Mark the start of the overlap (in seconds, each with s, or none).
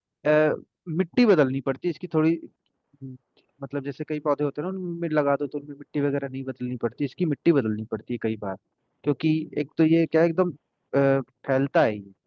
none